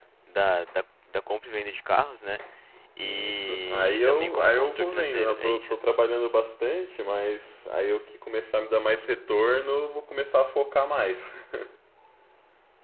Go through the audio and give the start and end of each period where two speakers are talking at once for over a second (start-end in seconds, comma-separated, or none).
3.0-5.8